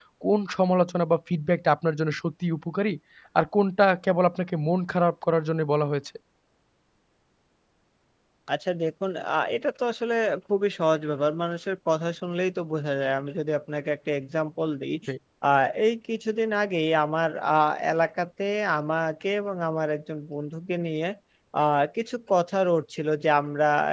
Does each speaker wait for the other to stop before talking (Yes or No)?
Yes